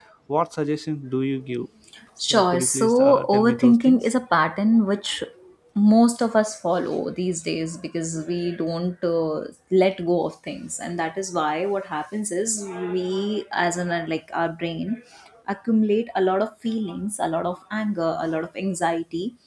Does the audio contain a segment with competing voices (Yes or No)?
Yes